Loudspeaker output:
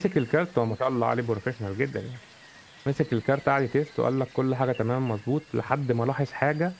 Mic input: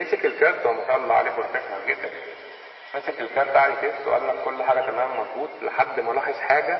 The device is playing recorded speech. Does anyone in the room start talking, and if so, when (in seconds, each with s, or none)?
none